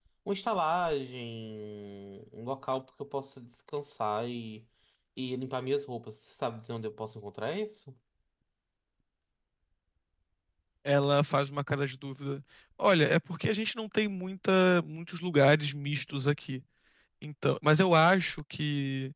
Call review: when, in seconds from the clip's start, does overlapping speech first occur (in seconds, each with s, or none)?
none